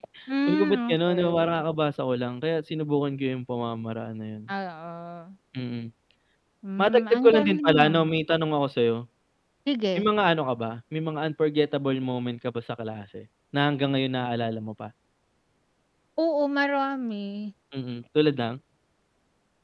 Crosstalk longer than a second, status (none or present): present